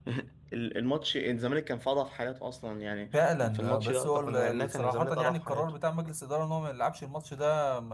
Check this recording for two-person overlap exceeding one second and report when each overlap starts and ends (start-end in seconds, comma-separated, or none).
3.5-5.7